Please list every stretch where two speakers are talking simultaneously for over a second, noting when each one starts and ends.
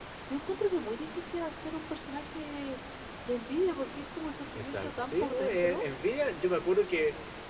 4.6-5.8

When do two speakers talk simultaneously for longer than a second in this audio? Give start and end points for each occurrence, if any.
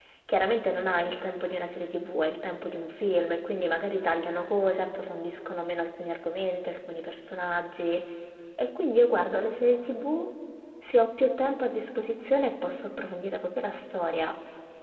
none

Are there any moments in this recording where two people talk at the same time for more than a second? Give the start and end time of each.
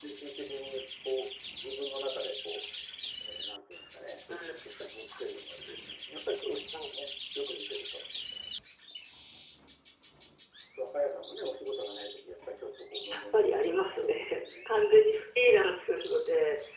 13.1-14.7

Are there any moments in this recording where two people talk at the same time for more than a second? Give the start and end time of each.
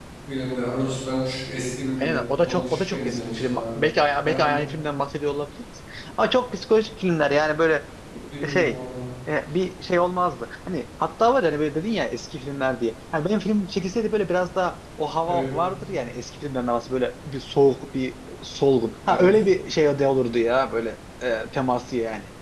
2.0-3.8

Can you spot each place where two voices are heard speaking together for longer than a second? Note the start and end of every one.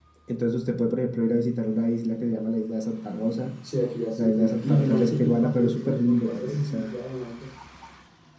4.2-6.9

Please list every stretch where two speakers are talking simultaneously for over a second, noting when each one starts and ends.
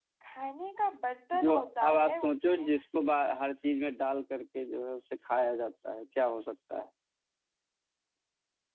1.4-2.7

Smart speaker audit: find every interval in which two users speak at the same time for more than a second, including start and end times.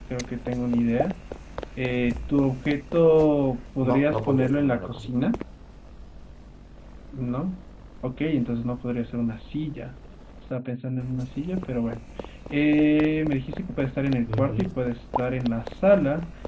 3.8-5.1

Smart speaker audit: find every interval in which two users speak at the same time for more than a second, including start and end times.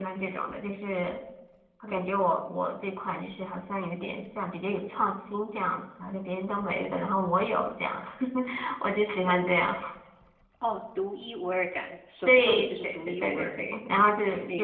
12.3-13.6

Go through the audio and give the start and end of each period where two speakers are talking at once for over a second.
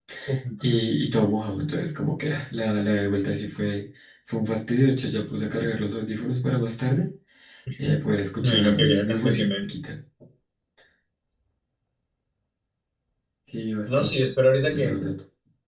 8.4-9.7

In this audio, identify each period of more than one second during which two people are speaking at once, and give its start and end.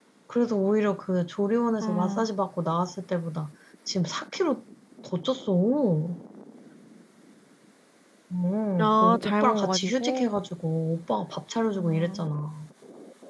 8.8-10.3

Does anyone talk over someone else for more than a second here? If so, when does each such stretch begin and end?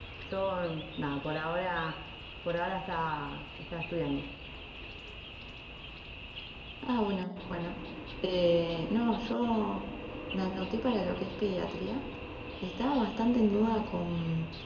none

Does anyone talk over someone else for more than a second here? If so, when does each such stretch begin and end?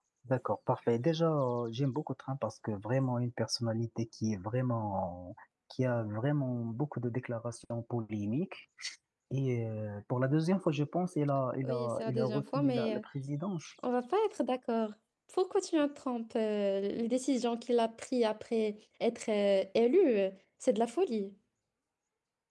11.6-13.0

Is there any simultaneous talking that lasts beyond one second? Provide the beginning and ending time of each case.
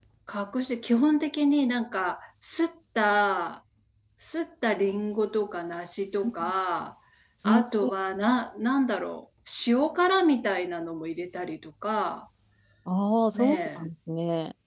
none

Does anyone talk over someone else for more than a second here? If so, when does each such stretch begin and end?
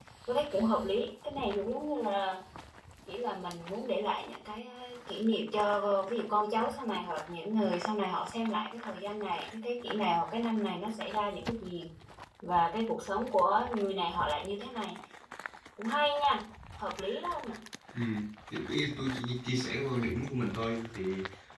none

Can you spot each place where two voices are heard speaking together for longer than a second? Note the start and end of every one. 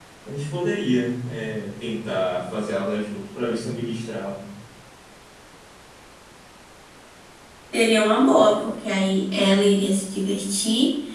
none

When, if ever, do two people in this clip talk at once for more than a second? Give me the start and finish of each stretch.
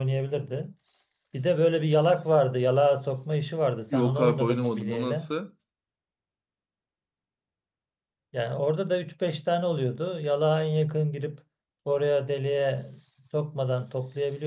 3.9-5.3

